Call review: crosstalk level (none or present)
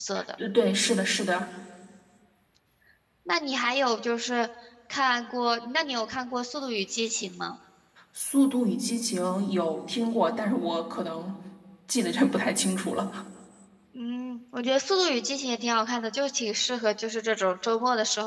none